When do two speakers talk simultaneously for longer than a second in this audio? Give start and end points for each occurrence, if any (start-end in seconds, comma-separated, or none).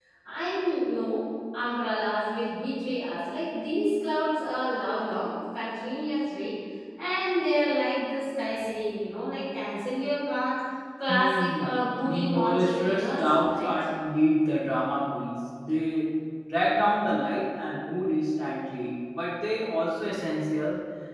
11.1-13.7